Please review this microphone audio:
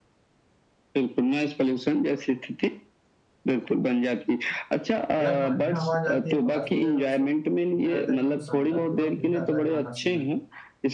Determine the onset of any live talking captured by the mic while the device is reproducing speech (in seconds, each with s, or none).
5.2 s